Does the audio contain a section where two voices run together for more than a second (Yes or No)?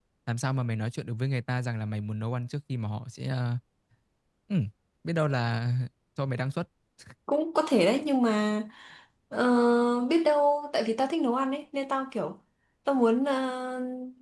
No